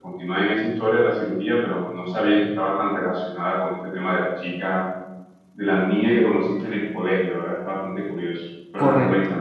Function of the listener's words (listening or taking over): taking over